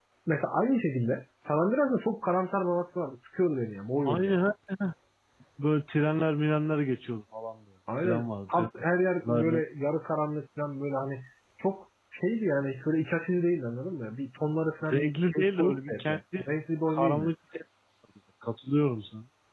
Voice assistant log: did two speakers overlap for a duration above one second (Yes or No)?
Yes